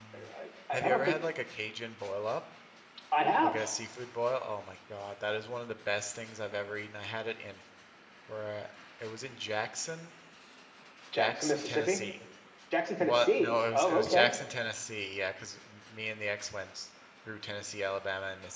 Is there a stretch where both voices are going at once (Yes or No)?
Yes